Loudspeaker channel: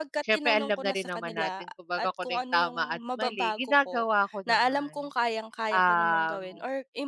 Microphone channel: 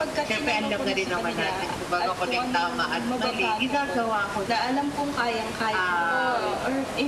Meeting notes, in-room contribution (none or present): present